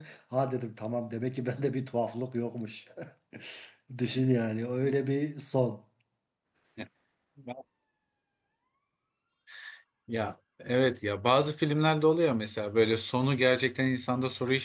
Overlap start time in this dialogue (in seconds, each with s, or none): none